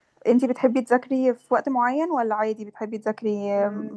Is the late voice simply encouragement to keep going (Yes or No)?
No